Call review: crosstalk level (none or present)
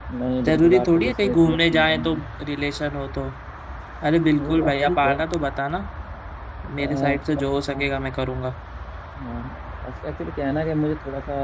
present